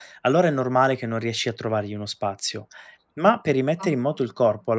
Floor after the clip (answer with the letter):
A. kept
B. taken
A